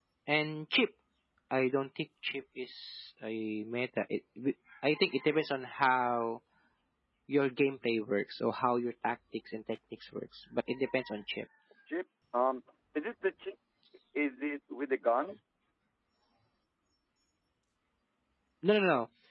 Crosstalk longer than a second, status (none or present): none